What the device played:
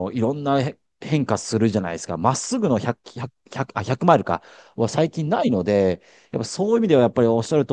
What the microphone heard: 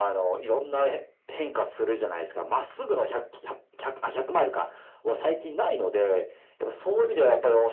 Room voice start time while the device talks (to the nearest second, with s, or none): none